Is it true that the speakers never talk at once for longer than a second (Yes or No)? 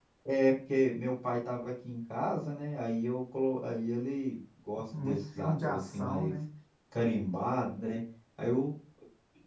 No